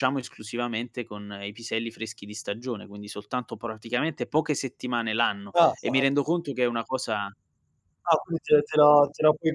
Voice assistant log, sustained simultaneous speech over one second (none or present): none